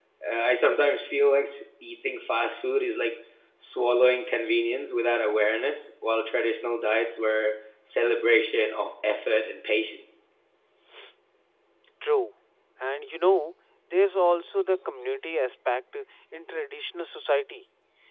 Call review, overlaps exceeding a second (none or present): none